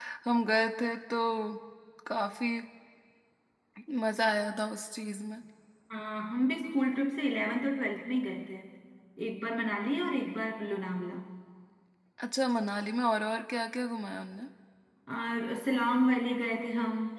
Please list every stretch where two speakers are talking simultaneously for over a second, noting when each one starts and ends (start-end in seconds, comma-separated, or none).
none